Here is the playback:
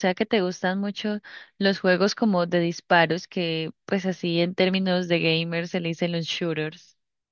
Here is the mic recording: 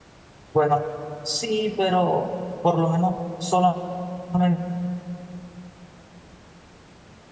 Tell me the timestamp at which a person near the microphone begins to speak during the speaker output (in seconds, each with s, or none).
0.5 s